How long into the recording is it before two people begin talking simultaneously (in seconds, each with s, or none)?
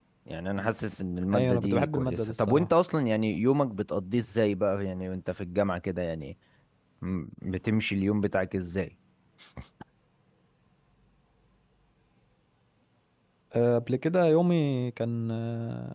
1.3 s